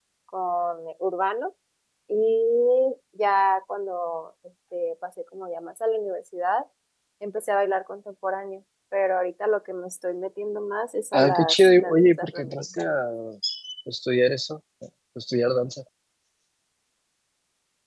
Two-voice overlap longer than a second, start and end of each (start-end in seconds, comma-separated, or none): 11.1-12.9